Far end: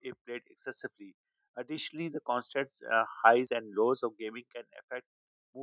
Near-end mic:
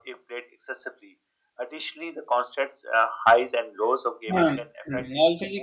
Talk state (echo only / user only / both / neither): both